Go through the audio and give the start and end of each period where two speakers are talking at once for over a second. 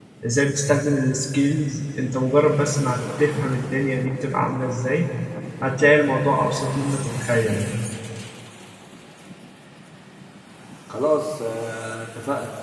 none

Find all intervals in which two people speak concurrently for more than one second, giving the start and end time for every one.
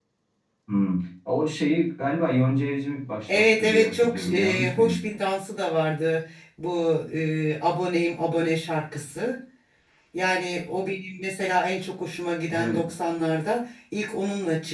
3.3-5.0

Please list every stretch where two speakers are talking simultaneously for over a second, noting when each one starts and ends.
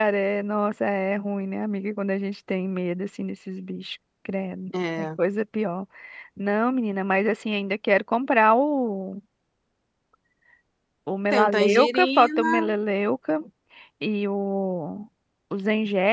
11.3-12.8

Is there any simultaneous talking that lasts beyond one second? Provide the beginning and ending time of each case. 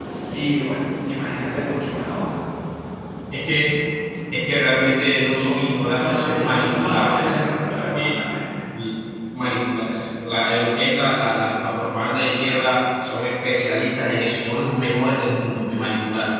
5.9-7.4

